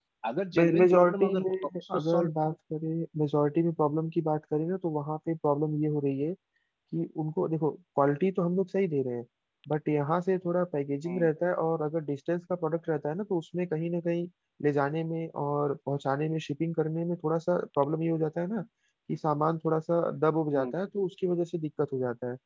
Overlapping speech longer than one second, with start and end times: 0.6-2.3

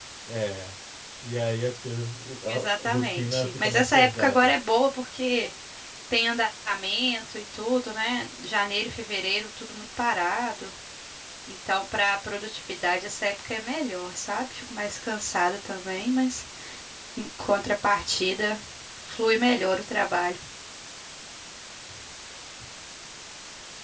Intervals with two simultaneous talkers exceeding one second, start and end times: 2.5-4.5

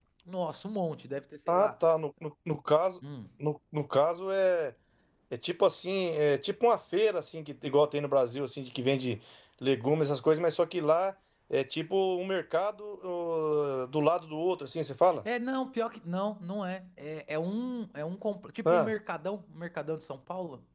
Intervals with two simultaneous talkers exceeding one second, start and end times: none

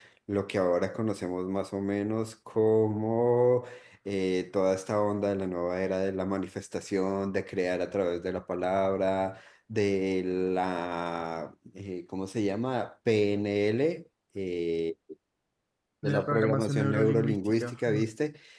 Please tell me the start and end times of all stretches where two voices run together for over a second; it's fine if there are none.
16.0-18.0

